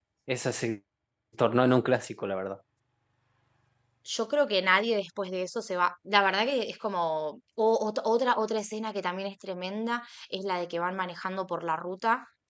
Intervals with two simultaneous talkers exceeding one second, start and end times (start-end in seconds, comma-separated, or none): none